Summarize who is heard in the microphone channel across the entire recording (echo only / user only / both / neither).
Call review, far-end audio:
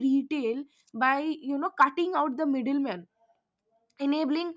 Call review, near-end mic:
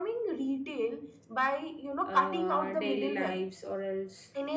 both